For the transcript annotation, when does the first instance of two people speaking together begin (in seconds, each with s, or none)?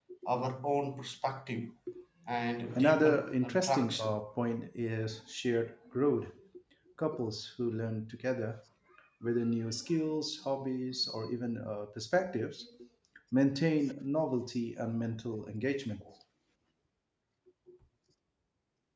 2.8 s